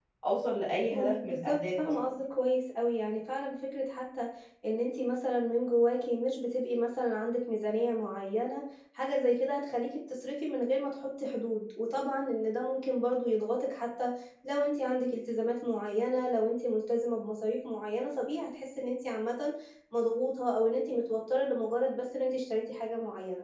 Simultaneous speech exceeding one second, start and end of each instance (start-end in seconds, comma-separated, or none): 0.9-2.1